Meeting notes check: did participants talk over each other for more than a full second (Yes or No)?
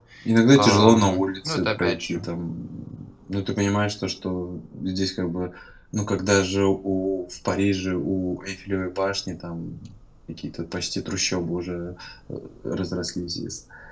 Yes